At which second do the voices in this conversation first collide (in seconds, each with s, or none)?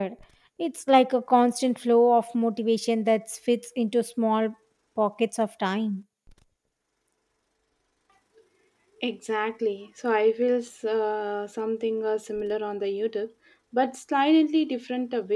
none